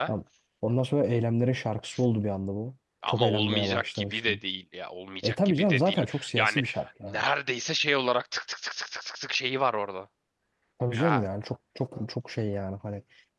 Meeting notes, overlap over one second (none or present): present